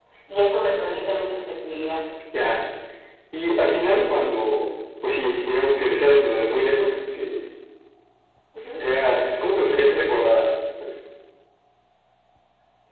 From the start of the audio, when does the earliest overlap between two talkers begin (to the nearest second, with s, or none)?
none